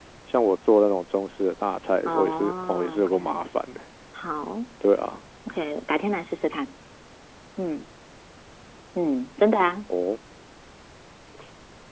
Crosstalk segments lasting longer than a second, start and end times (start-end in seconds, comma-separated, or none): 2.1-3.4